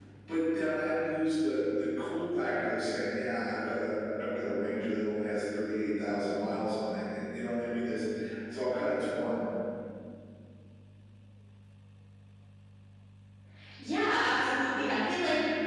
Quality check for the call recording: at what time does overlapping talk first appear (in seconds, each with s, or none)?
none